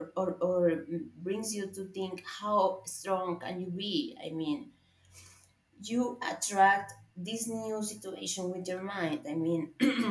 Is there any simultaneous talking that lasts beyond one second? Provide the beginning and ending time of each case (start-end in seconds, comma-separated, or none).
none